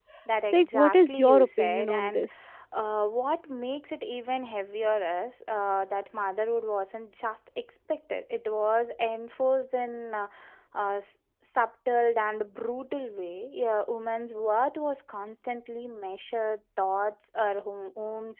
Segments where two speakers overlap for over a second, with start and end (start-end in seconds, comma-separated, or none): 0.5-2.2